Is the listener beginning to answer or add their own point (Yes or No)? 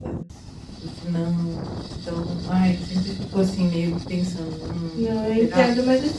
Yes